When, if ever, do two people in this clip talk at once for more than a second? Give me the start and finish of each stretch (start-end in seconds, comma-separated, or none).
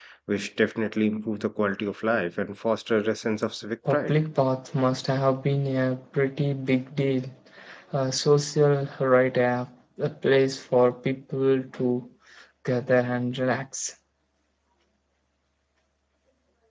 none